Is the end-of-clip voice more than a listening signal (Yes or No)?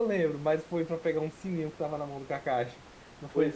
Yes